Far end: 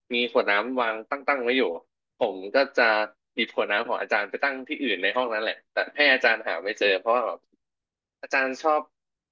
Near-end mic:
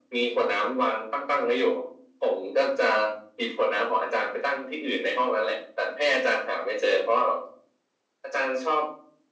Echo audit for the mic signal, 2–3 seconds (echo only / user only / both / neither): echo only